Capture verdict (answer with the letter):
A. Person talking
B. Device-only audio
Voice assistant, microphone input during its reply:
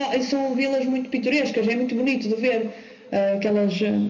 B